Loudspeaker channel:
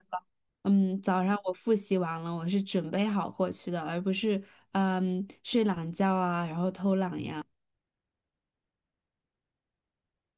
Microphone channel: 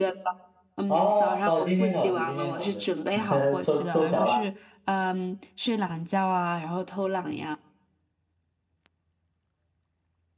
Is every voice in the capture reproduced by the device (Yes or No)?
No